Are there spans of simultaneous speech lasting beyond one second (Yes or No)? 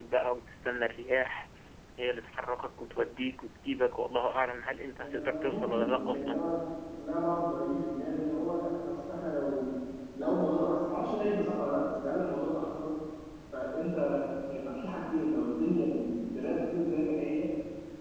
Yes